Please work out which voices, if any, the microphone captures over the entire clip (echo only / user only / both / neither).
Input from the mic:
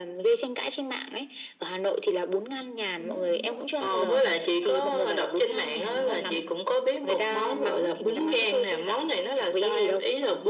both